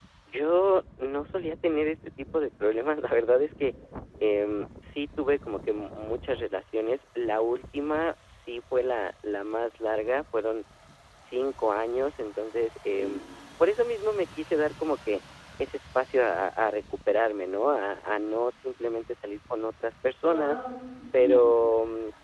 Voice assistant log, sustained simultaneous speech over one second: none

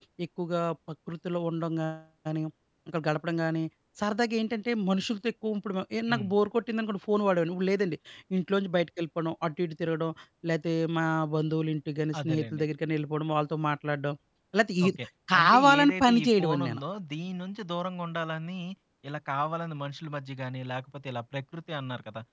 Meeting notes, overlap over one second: present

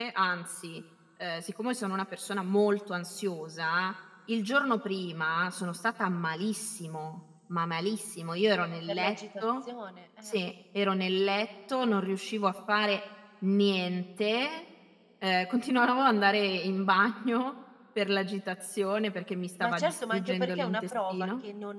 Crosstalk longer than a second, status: present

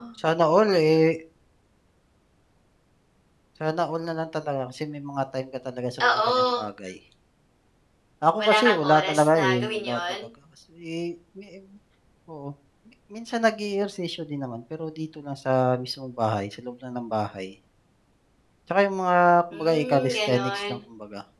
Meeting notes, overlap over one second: present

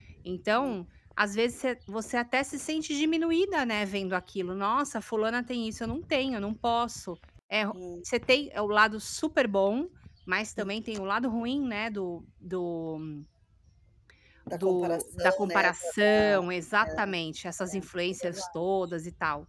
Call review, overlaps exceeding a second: present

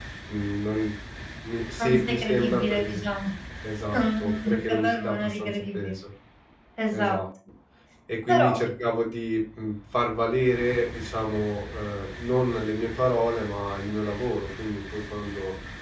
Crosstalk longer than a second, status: present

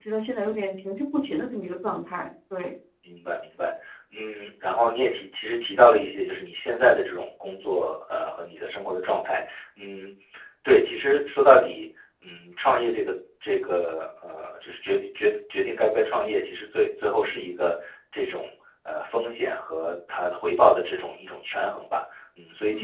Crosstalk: none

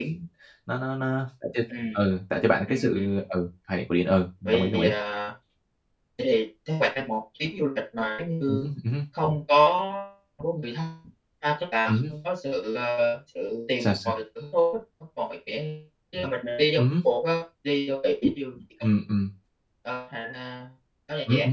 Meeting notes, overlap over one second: none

